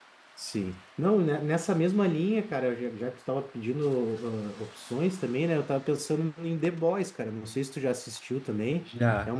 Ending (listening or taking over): listening